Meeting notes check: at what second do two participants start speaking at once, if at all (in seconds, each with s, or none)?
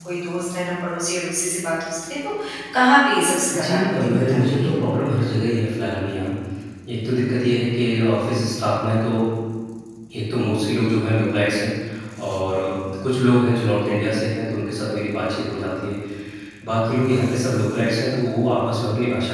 3.5 s